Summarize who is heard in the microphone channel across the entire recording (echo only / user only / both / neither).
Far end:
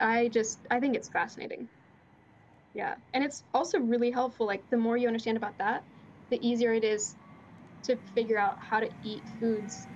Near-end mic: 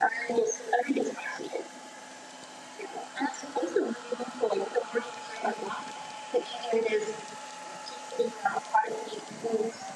echo only